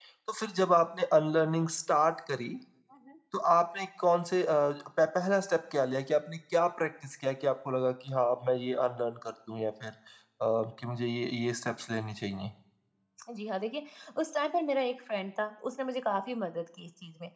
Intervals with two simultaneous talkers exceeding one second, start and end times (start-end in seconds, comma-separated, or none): none